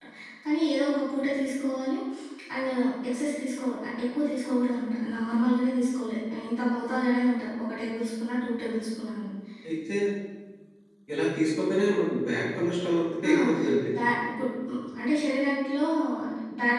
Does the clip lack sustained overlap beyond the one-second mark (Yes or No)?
Yes